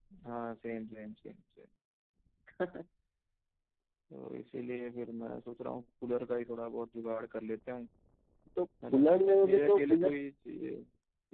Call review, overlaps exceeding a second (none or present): present